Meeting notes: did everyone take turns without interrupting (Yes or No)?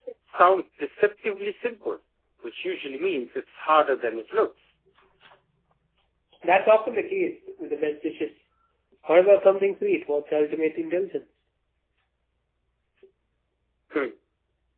Yes